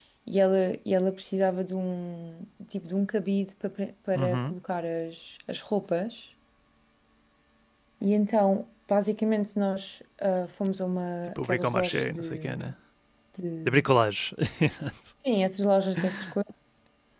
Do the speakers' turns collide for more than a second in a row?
Yes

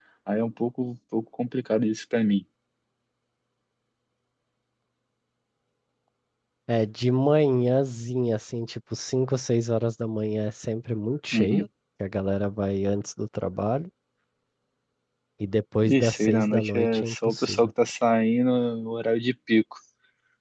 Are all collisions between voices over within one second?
No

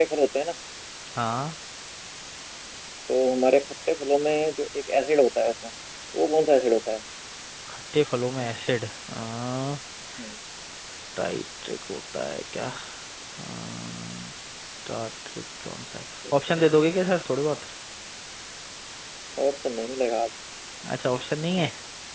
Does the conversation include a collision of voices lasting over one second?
No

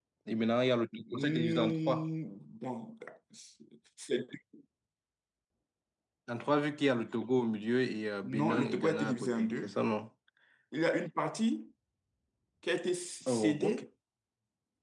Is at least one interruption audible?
Yes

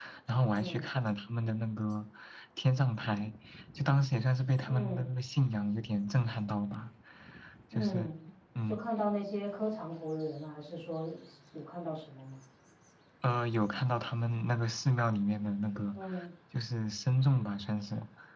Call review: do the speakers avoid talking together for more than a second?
Yes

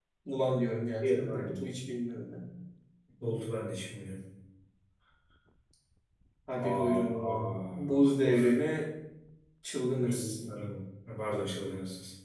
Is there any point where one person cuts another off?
Yes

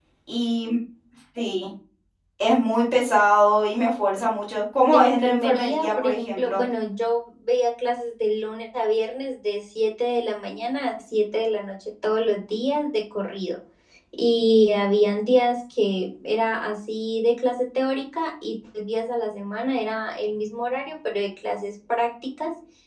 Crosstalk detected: Yes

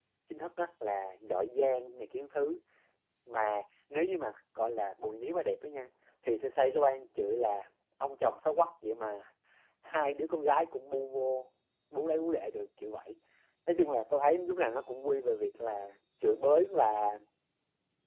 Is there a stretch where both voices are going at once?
No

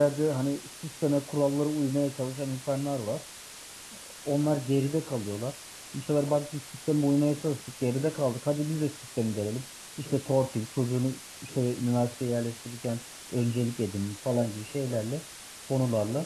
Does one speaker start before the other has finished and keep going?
No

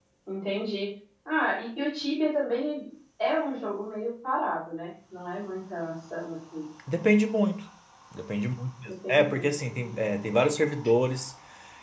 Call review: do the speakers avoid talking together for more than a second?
No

